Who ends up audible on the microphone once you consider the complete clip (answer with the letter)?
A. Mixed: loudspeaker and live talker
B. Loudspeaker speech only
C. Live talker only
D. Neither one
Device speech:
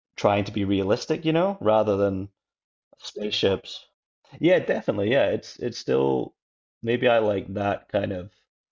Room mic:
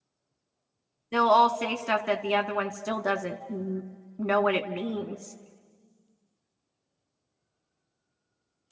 C